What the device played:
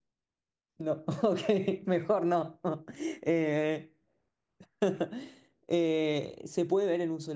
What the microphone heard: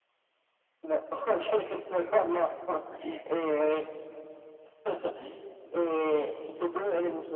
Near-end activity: none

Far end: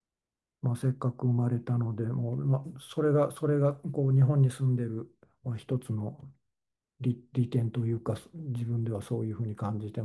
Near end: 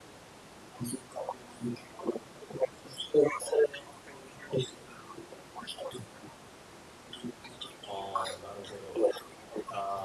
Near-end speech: present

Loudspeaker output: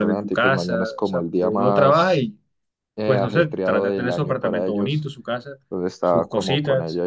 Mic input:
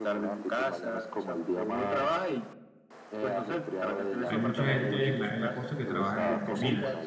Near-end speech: present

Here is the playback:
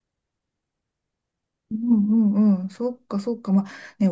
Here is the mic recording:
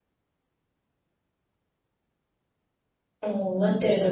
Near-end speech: present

